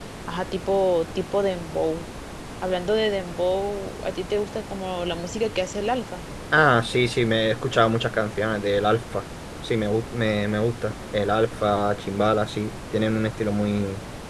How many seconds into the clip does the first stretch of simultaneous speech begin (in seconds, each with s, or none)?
none